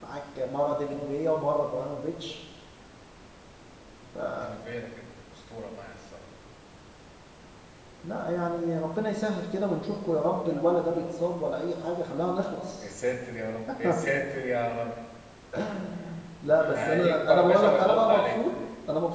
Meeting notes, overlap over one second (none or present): present